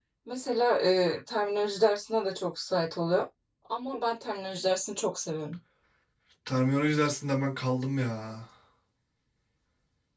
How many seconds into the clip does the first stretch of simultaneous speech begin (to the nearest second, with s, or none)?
none